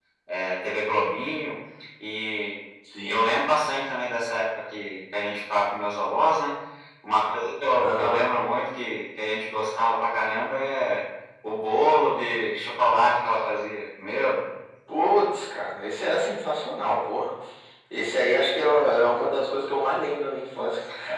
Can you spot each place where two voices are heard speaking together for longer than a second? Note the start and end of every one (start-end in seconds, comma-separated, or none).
none